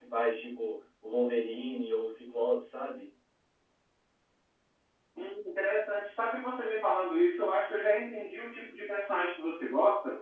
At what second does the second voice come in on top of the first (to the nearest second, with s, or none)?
none